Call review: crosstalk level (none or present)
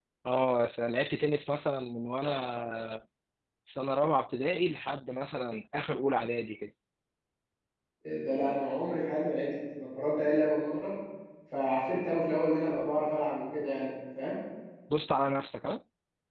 none